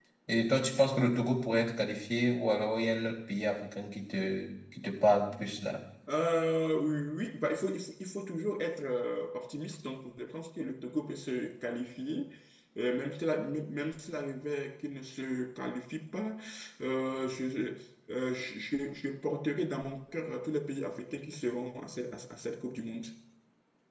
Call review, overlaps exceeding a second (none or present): none